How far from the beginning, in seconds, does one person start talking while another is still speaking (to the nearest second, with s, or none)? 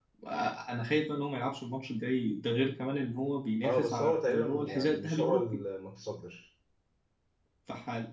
4 s